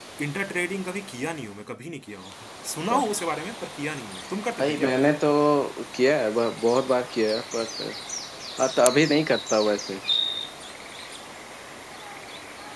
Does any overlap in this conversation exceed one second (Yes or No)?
No